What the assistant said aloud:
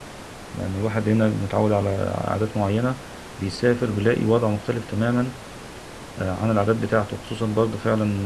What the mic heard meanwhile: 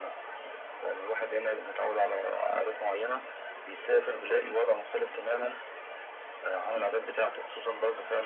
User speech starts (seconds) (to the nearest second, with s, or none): none